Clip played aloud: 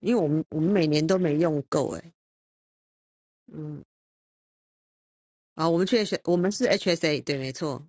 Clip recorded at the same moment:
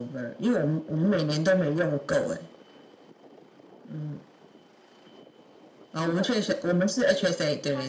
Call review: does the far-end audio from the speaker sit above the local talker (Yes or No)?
Yes